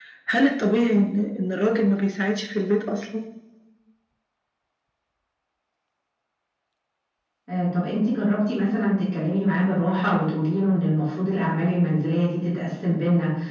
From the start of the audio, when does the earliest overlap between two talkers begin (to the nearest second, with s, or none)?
none